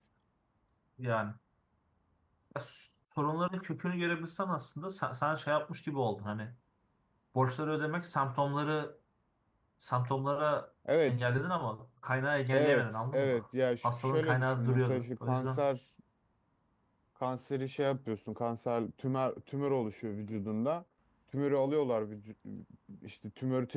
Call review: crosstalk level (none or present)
present